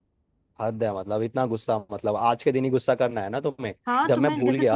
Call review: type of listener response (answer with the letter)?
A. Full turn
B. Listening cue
A